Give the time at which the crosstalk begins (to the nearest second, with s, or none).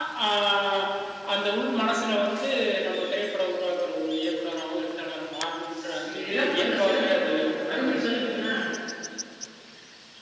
6 s